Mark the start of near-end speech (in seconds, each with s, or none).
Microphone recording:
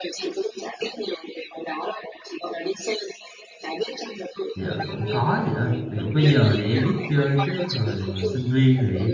4.5 s